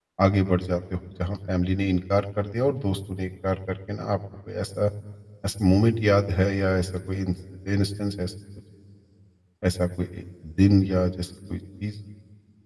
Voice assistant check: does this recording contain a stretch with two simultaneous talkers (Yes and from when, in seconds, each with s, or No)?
No